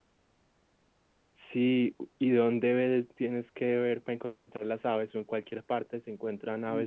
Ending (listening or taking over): taking over